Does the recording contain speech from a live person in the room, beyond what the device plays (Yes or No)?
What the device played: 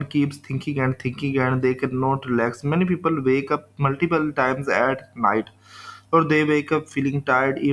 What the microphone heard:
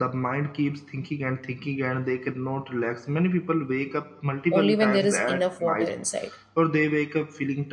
Yes